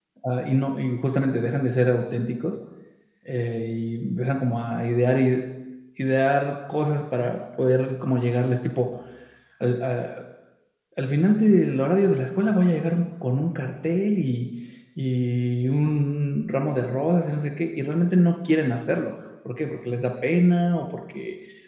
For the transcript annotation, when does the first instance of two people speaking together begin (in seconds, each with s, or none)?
none